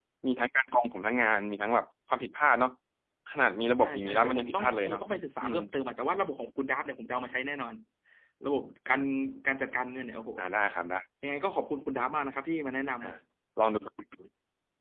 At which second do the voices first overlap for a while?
3.8 s

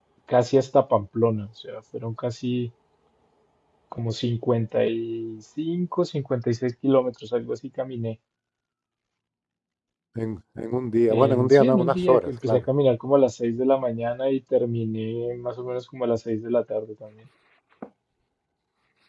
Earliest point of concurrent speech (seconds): 11.1 s

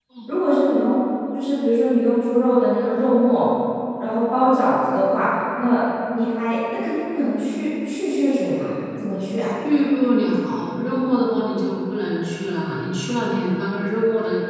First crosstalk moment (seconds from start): none

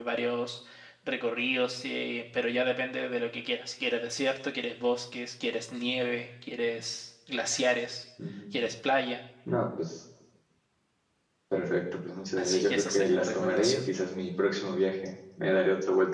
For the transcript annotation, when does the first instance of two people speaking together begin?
12.4 s

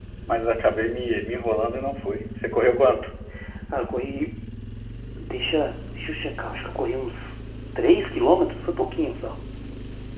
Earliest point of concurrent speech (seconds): none

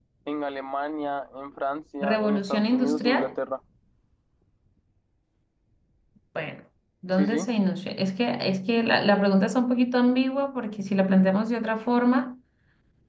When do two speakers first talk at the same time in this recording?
2.0 s

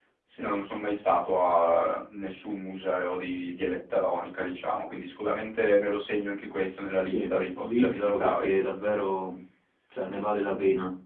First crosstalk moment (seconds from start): 7.0 s

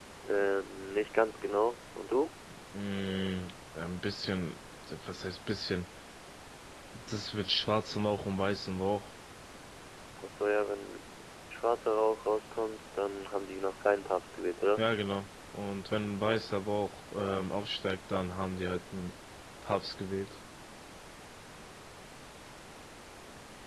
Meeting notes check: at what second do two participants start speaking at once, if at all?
none

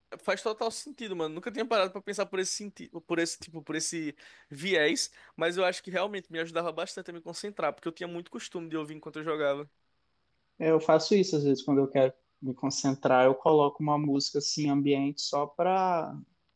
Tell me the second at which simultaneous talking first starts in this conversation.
none

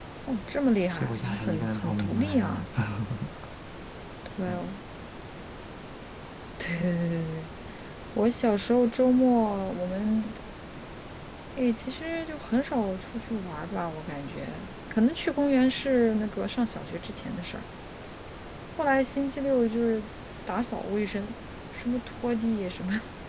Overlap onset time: 0.9 s

